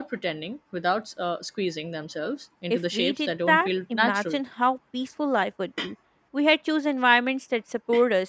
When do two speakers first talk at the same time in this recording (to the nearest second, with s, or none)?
3 s